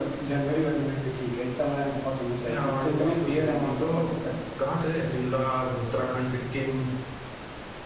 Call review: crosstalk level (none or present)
present